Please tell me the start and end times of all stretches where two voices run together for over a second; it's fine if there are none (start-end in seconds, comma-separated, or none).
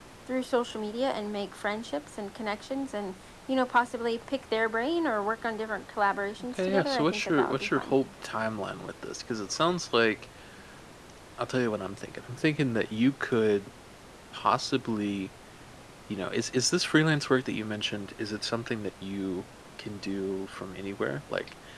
6.5-7.9